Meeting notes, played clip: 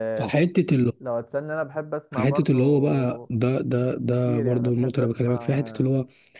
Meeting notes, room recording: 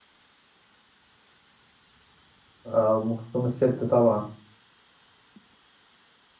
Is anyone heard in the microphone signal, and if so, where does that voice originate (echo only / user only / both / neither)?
user only